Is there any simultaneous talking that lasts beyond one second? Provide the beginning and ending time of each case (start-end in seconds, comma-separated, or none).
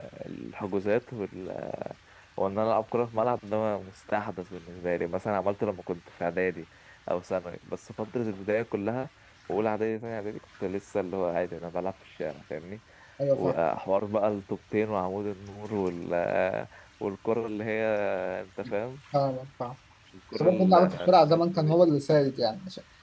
20.4-21.7